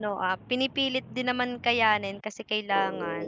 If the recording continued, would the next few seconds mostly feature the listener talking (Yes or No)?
Yes